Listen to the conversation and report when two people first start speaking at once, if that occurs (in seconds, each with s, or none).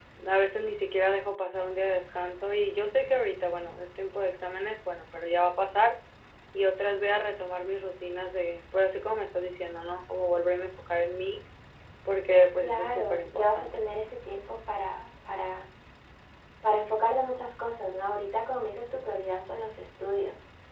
12.6 s